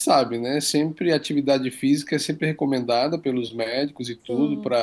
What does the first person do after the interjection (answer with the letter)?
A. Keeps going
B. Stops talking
A